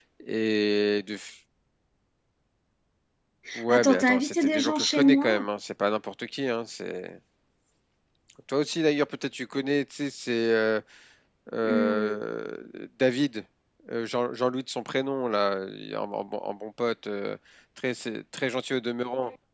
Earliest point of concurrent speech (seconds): 4 s

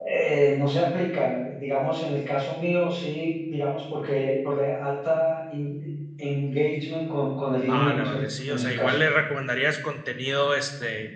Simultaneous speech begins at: 8 s

